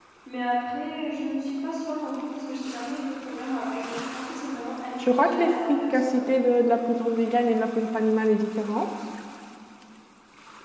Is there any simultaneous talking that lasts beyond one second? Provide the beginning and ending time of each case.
5.0-6.3

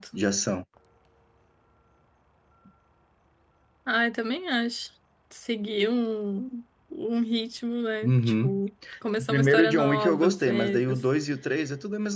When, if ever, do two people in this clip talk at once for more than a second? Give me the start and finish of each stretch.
9.2-11.0

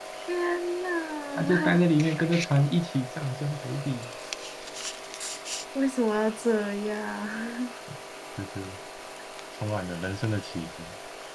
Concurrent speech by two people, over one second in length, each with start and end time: none

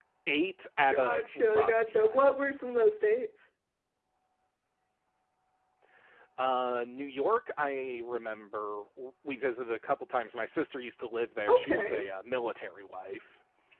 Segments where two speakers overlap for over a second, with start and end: 0.9-2.5

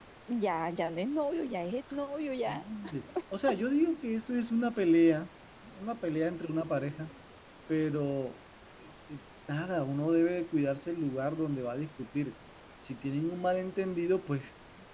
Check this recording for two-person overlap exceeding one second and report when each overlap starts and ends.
none

